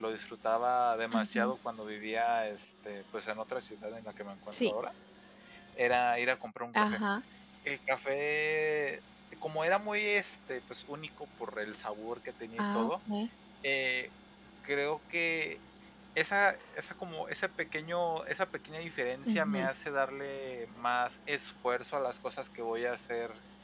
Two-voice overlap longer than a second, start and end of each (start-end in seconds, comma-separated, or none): none